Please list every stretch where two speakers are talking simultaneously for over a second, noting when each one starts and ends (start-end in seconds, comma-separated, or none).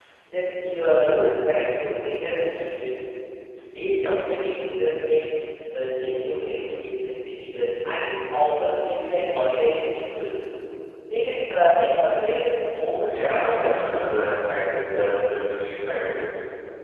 13.1-14.5